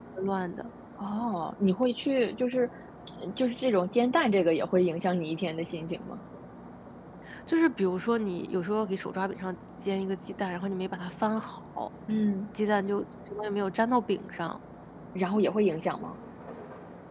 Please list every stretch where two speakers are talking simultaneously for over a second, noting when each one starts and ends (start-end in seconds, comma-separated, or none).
none